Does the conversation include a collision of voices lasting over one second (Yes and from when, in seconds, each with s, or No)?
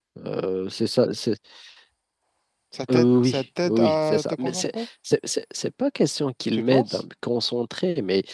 Yes, from 2.9 s